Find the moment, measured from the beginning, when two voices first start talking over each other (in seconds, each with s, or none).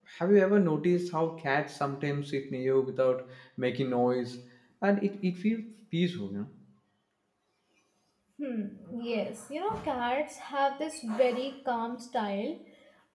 none